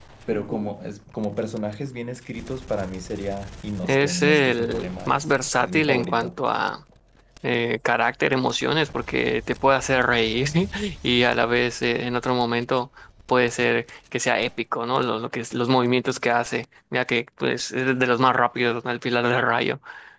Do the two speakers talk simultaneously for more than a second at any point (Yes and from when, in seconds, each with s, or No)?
Yes, from 3.8 s